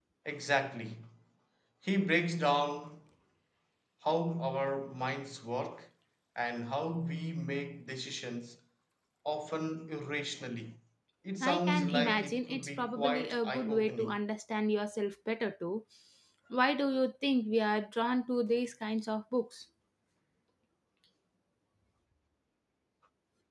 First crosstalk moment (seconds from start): 11.4 s

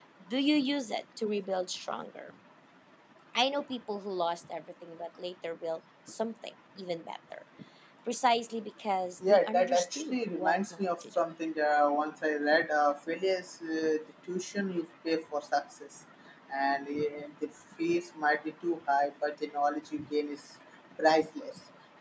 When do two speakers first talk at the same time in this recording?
9.2 s

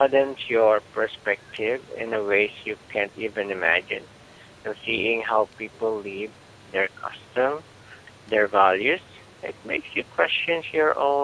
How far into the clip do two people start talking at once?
none

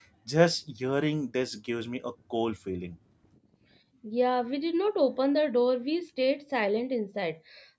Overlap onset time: none

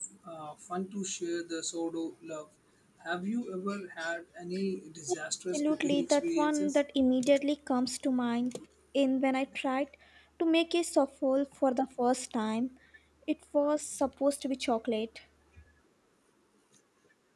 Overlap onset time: 5.5 s

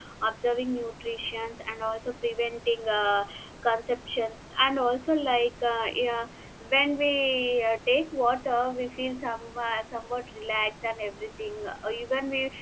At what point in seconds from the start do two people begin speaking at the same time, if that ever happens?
none

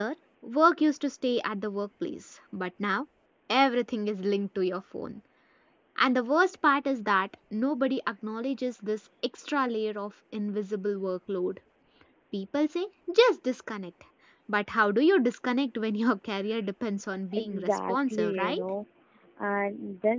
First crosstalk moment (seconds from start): 17.4 s

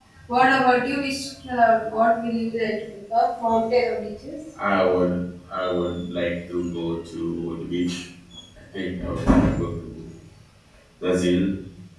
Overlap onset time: none

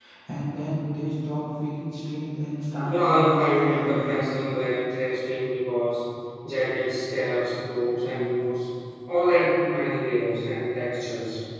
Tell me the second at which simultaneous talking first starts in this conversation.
2.8 s

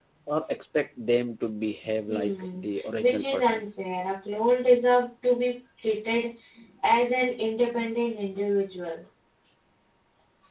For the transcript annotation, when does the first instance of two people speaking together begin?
2.1 s

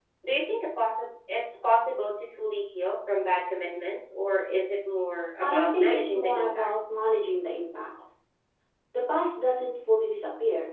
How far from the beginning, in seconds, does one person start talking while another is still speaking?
5.4 s

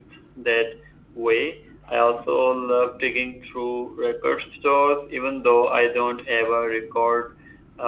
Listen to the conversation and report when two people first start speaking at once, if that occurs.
none

